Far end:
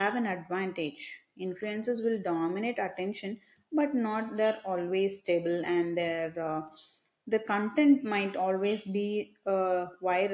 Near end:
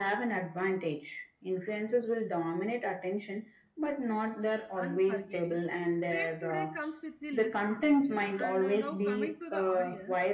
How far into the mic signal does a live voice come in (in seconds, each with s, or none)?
4.7 s